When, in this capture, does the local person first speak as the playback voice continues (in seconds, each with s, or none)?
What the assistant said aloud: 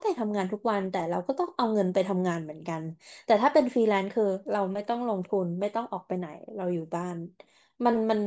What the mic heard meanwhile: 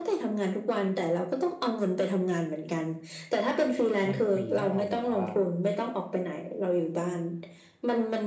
4.1 s